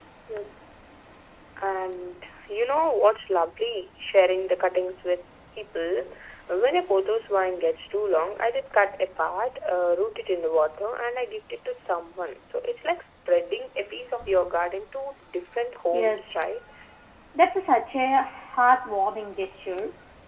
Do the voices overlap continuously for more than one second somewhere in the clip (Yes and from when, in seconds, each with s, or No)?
No